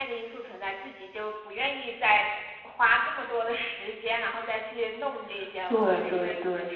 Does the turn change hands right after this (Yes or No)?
Yes